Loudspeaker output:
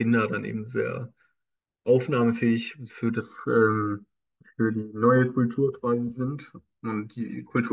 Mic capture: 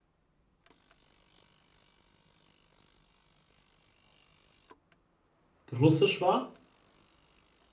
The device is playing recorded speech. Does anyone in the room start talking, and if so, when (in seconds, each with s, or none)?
5.7 s